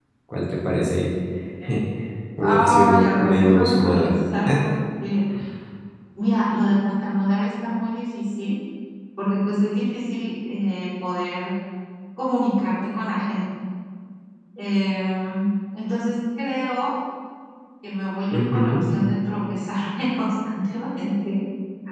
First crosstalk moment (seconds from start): 2 s

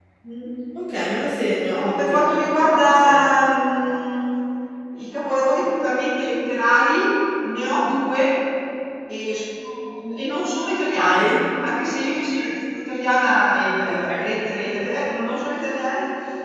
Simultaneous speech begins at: 2 s

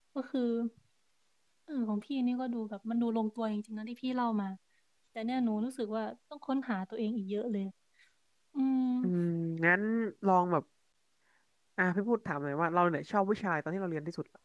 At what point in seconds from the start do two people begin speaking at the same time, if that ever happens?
none

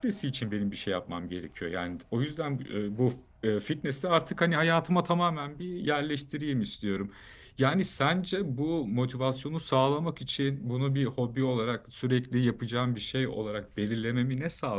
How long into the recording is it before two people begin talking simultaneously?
none

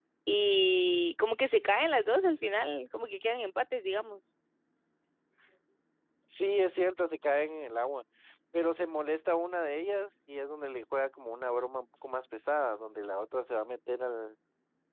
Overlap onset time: none

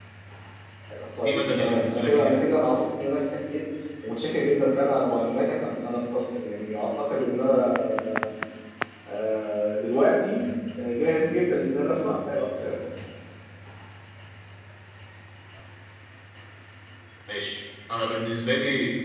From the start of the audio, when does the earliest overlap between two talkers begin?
1 s

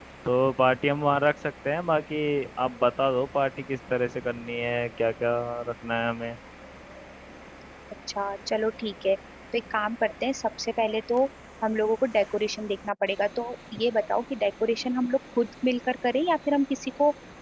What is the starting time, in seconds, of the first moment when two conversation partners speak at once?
none

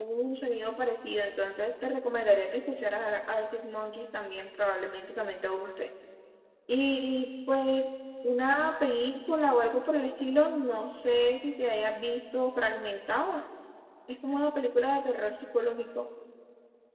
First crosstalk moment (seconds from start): none

